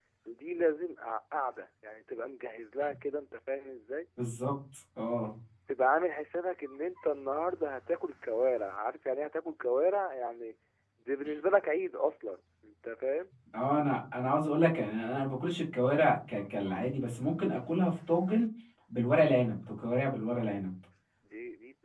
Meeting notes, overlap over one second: none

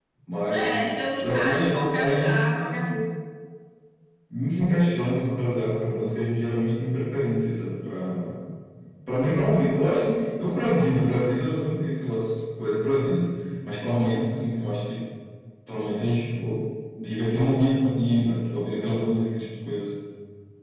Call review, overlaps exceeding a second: present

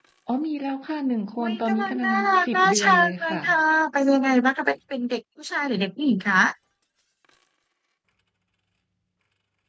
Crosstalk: present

